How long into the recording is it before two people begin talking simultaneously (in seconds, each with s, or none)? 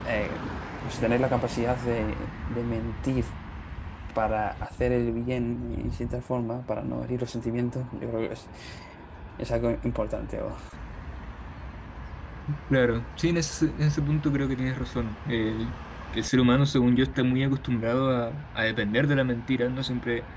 none